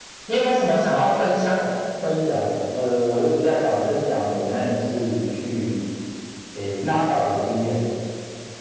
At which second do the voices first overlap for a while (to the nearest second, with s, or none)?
none